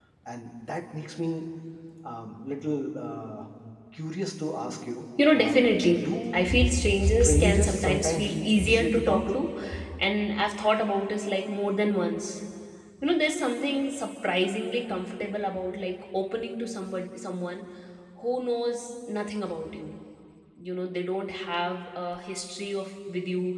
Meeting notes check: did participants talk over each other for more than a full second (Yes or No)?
Yes